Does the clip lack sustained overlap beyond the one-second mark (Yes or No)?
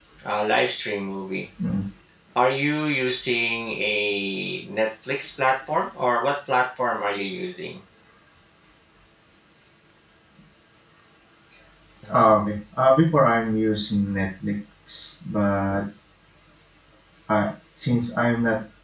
Yes